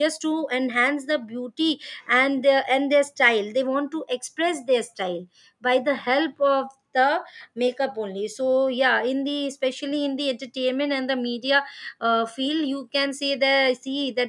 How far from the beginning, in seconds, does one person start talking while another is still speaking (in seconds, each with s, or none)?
none